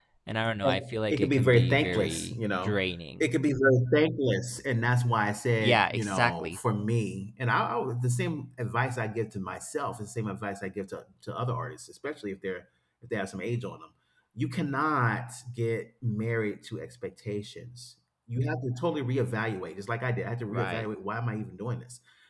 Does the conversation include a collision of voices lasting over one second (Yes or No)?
Yes